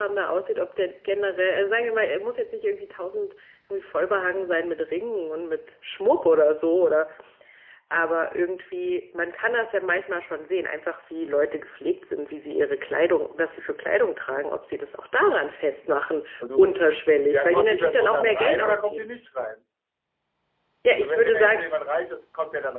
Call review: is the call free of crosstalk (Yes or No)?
No